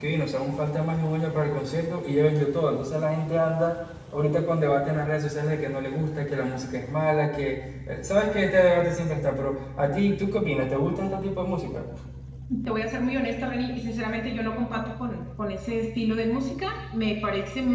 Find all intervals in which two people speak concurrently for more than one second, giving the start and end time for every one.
none

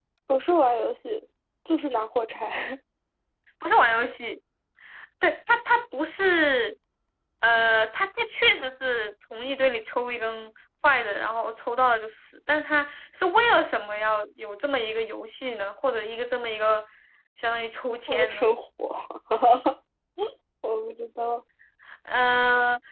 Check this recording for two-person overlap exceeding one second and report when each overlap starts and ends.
none

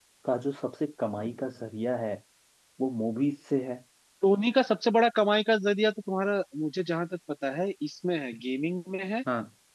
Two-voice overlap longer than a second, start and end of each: none

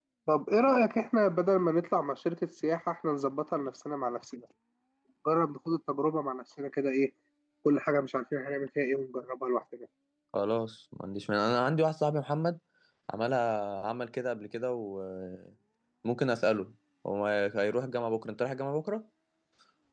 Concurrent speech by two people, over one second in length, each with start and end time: none

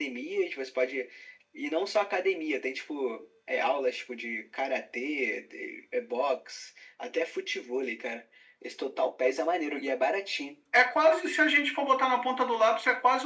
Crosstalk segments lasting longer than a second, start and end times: none

